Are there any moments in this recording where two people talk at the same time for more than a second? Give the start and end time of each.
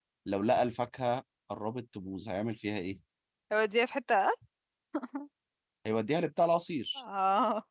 none

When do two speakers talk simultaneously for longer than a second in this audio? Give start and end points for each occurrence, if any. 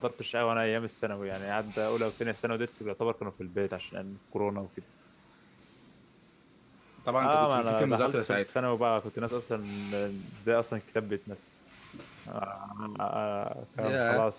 7.2-8.5

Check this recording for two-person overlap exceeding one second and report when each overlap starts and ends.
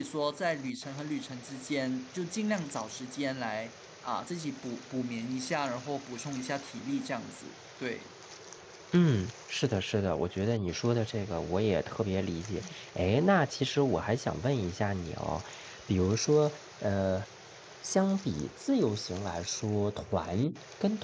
none

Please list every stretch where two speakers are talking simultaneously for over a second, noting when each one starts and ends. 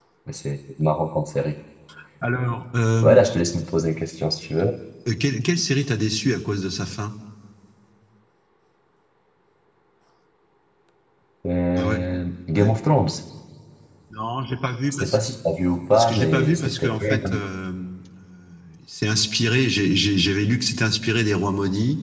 15.9-17.4

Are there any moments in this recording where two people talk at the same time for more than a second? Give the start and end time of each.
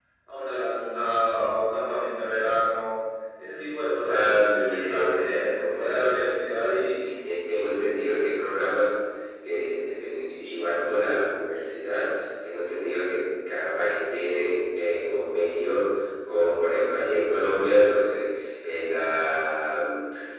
4.1-6.9

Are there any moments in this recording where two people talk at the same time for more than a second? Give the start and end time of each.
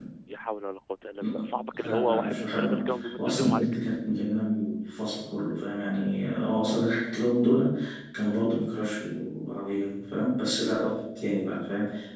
1.8-3.7

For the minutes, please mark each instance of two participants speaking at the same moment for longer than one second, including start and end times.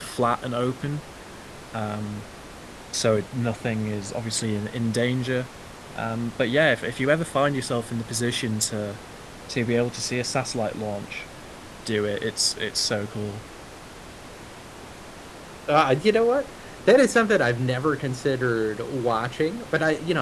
none

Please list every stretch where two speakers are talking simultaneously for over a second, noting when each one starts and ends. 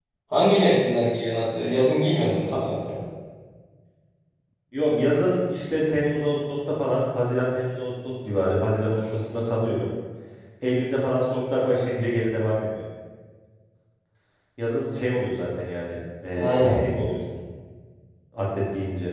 none

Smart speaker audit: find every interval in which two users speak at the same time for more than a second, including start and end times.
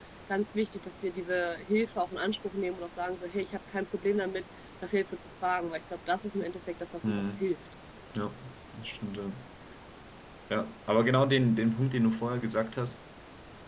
none

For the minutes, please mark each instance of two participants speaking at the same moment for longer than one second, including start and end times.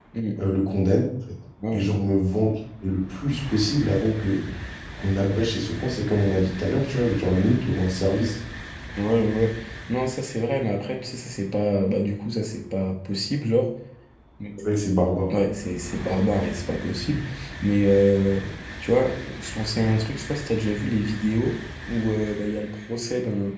none

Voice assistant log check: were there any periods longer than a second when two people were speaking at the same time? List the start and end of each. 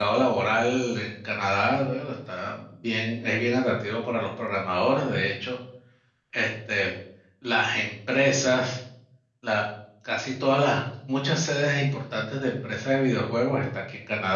none

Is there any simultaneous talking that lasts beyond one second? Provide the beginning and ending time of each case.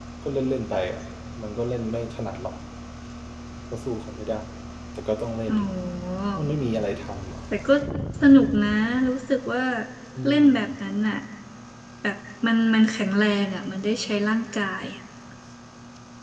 none

